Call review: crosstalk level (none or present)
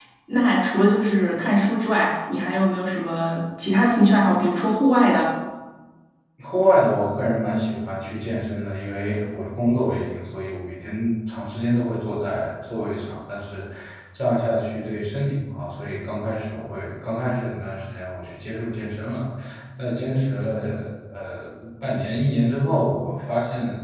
none